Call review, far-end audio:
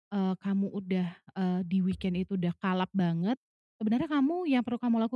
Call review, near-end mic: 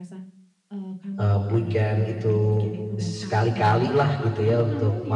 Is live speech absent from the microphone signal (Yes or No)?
No